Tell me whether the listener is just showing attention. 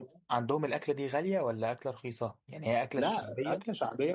No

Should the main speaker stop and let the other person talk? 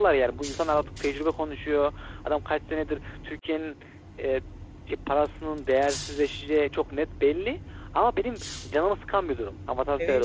Yes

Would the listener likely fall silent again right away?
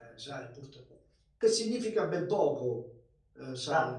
Yes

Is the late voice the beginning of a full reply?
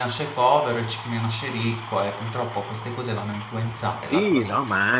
Yes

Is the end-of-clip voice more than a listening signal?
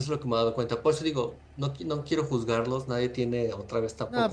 Yes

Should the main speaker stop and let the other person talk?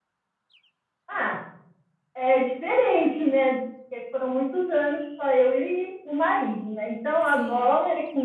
No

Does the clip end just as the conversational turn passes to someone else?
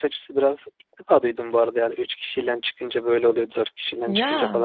No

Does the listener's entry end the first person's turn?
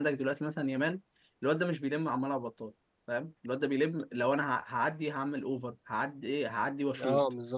Yes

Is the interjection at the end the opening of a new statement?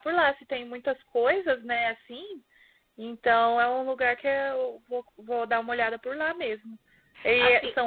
No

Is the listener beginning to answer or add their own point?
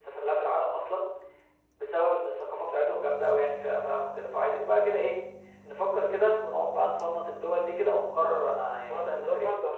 Yes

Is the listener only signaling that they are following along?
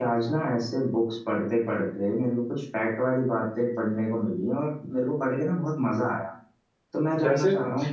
Yes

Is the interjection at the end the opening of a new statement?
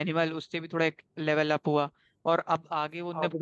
No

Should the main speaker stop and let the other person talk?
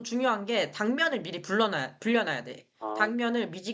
No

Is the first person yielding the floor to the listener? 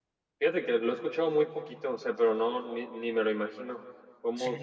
Yes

